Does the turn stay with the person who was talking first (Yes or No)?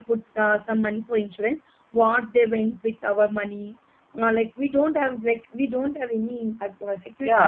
No